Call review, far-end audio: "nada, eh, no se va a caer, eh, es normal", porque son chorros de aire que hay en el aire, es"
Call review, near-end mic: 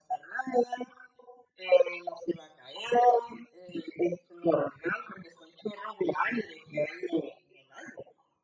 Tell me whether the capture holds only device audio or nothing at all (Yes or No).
Yes